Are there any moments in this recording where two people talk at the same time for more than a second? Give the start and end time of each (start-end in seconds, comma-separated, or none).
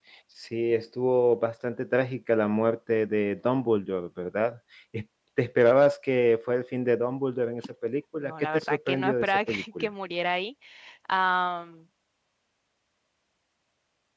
8.2-9.9